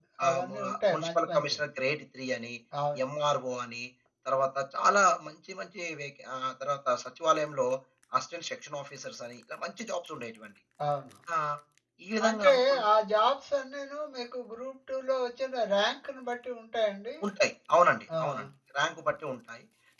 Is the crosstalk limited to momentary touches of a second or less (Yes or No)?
No